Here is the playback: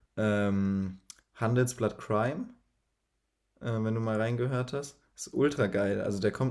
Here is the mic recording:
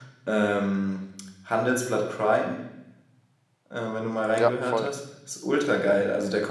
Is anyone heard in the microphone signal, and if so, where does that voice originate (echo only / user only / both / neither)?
both